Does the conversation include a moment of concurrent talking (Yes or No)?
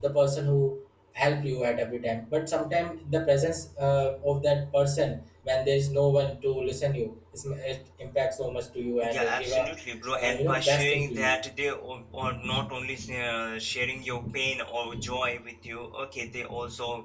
Yes